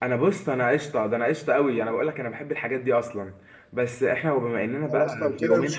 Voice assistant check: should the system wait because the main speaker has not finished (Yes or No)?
No